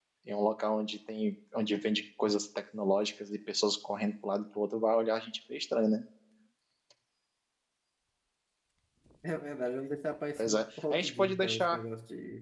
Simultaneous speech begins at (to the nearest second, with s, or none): 10 s